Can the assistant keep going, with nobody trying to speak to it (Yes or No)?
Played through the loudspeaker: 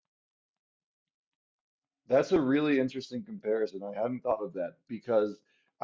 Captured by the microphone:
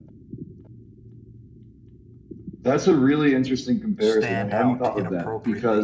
No